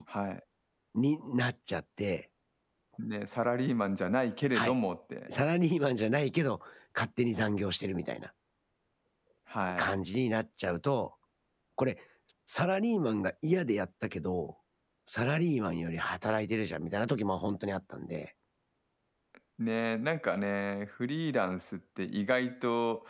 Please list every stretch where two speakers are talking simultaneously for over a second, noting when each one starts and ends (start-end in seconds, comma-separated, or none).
none